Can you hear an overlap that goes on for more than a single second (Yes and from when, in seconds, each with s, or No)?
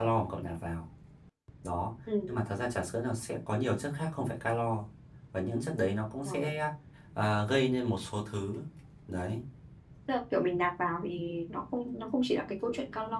No